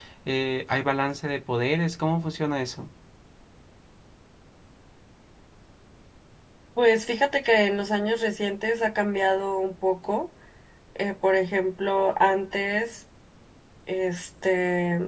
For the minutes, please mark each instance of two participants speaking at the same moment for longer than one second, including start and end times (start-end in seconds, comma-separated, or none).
none